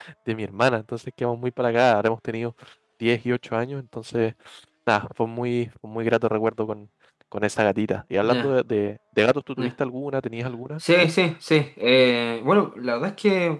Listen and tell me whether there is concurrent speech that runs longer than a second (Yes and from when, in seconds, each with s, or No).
No